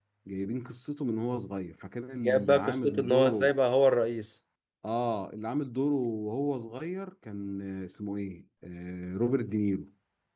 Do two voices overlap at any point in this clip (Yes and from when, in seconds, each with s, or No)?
Yes, from 2.2 s